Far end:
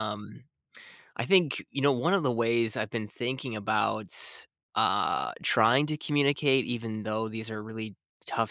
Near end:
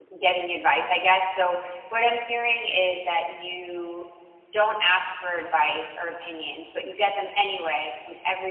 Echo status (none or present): none